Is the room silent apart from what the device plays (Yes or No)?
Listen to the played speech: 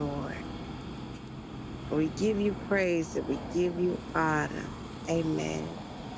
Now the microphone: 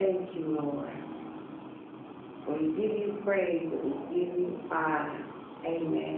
Yes